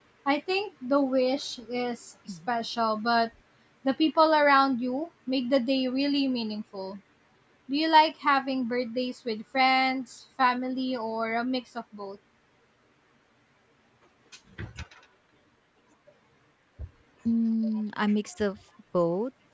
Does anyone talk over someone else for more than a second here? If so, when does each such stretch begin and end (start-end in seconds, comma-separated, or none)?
none